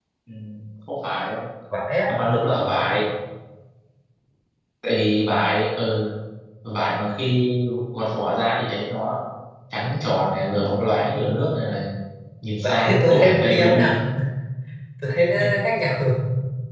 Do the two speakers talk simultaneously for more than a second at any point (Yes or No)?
Yes